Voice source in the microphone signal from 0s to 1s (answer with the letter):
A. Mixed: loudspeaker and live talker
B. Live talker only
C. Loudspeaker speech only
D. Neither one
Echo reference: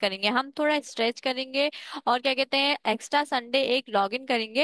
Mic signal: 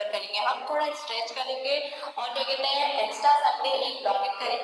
C